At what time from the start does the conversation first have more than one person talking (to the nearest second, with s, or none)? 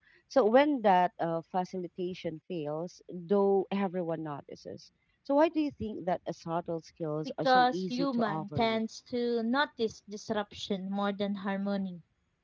7 s